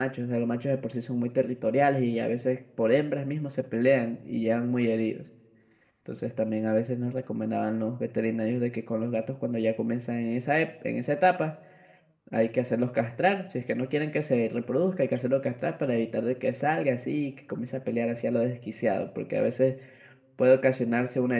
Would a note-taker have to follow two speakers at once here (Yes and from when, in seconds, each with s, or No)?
No